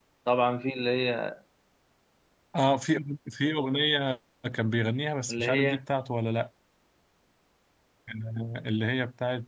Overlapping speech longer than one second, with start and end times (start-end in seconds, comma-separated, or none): none